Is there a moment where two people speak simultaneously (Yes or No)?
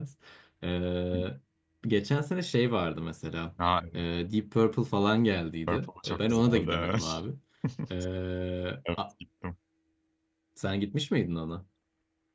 Yes